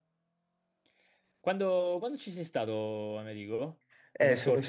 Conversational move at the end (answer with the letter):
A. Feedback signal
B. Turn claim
B